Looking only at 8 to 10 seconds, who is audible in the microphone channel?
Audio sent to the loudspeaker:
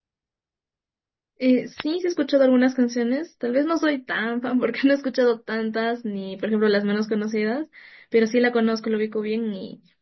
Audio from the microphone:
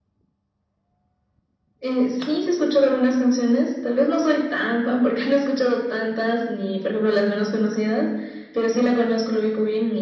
echo only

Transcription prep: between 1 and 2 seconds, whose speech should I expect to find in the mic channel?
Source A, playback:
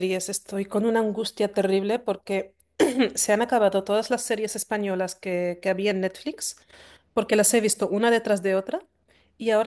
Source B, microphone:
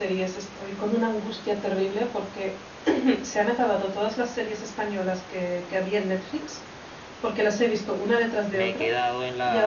echo only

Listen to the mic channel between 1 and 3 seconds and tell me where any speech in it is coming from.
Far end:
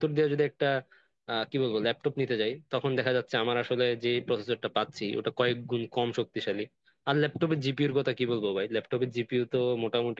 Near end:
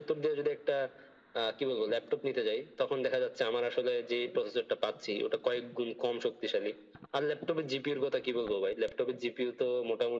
echo only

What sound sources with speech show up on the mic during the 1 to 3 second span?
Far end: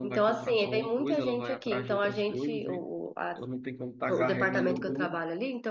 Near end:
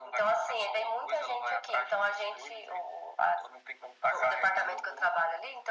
echo only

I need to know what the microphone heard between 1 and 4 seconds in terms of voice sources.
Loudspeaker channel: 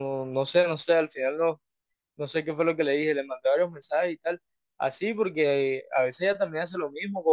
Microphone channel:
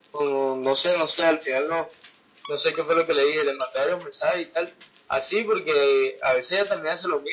echo only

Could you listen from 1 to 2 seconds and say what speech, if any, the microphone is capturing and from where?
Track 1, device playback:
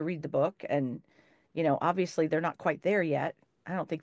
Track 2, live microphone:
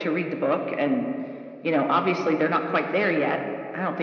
echo only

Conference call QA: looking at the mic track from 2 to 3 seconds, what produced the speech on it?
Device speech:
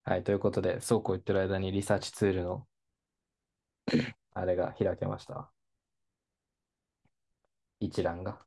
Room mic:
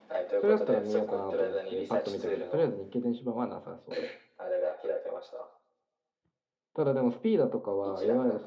both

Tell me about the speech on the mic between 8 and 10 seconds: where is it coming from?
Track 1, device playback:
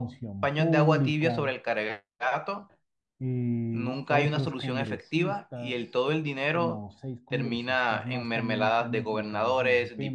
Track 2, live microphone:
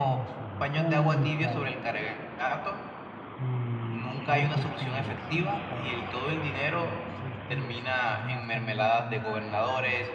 echo only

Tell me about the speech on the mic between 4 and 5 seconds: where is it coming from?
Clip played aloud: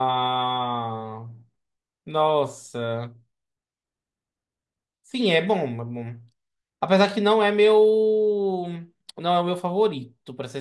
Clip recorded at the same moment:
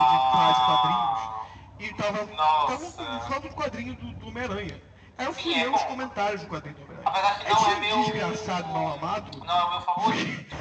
user only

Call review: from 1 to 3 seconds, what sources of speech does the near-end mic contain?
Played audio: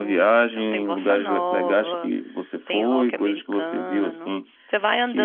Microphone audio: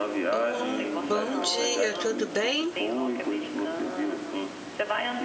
both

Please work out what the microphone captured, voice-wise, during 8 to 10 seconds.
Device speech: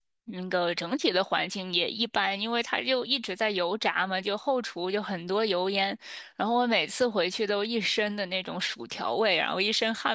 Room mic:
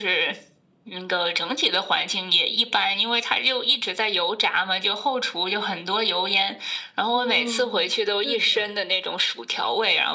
both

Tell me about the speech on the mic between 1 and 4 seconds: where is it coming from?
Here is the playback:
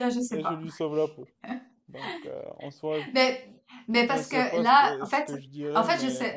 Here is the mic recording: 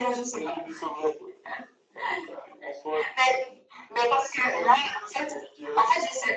echo only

